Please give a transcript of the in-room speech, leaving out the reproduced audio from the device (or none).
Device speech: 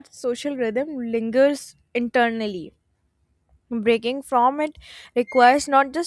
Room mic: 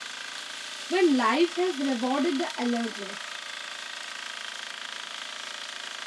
when life has rewarded the alertness.